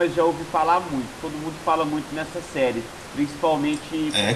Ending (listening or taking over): listening